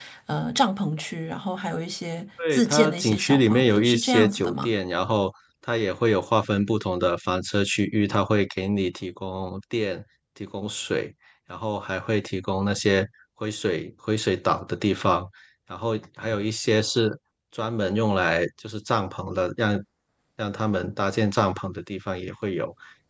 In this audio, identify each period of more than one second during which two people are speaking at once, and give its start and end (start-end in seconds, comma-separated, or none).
2.5-4.7